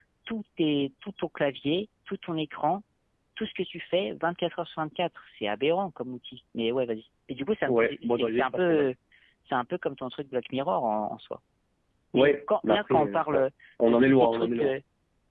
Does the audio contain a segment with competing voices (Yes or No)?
Yes